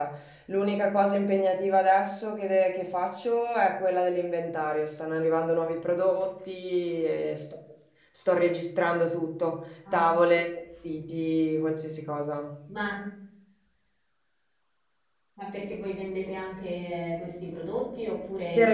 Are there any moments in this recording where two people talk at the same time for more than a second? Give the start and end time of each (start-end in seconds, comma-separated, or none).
none